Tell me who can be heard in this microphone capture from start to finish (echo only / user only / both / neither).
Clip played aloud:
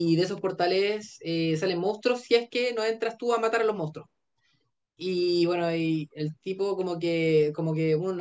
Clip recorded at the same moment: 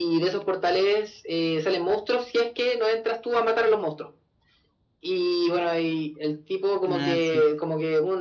both